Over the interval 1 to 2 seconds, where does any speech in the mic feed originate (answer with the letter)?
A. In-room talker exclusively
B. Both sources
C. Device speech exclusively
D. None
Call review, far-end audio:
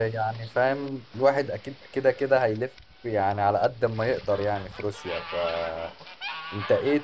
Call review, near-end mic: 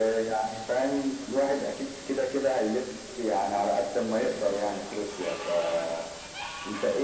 C